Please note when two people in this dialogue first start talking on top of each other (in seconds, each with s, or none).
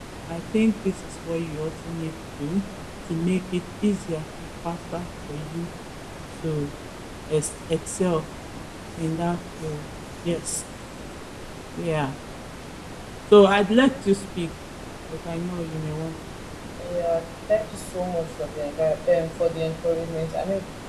none